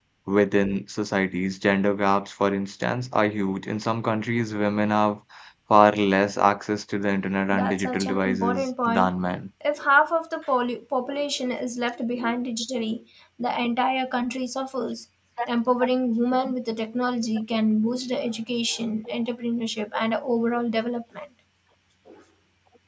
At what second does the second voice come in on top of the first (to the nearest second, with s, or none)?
8 s